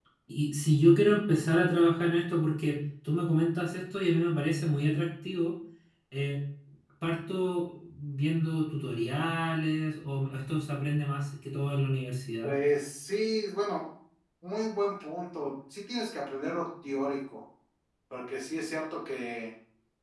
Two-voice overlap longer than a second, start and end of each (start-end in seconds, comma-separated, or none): none